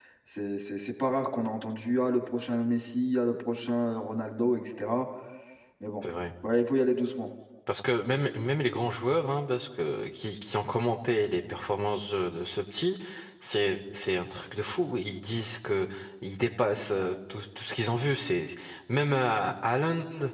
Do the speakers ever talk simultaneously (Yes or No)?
No